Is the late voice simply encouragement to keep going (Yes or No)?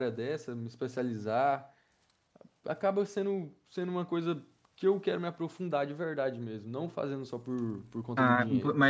No